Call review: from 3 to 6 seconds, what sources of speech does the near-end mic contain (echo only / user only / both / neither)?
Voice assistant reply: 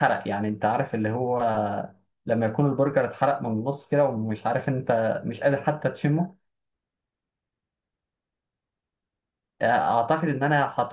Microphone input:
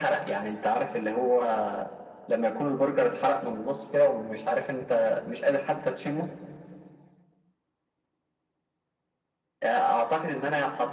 echo only